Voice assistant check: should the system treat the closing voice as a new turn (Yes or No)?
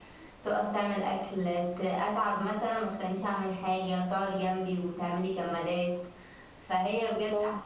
No